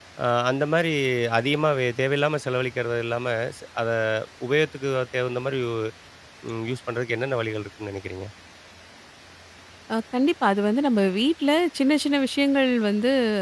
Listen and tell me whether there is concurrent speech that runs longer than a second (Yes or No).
No